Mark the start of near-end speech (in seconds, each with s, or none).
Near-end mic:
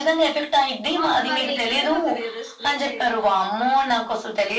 0.9 s